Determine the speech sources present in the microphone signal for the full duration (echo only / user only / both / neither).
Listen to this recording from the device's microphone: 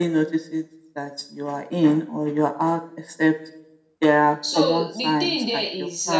both